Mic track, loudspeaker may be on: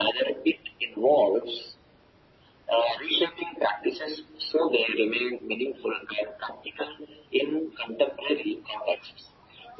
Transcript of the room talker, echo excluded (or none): none